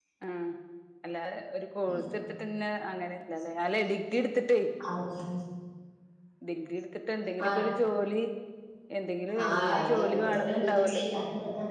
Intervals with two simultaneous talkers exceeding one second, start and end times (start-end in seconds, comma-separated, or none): 9.4-11.0